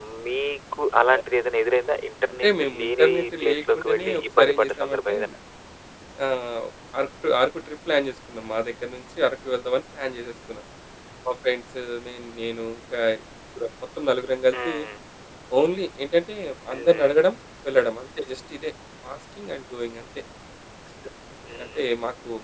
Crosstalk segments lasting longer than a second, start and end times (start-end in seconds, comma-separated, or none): 2.4-5.2